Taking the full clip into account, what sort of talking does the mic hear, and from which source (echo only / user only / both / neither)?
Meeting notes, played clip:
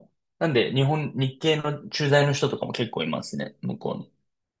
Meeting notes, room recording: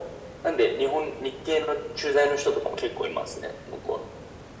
echo only